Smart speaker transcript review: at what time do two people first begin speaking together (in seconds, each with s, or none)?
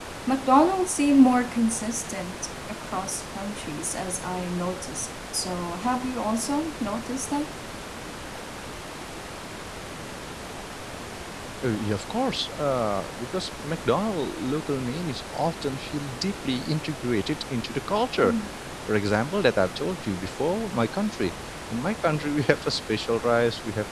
none